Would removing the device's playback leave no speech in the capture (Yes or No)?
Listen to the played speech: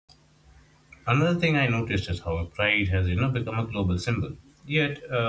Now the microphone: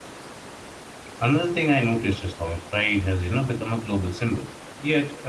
Yes